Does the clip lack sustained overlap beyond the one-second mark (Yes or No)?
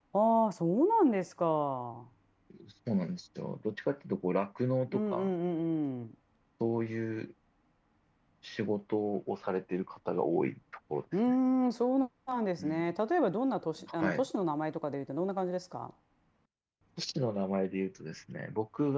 Yes